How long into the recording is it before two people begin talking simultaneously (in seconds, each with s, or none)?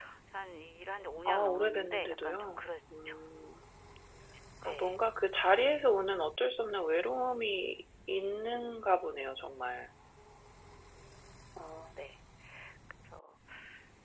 1.3 s